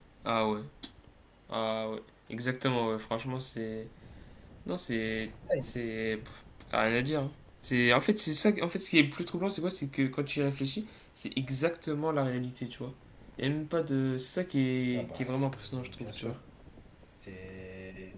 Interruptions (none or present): present